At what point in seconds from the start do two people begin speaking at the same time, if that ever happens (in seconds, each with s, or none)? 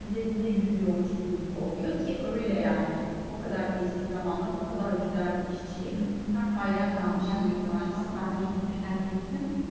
6.3 s